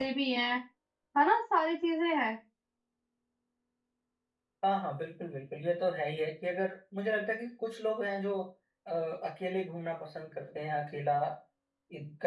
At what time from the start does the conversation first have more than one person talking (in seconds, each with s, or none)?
none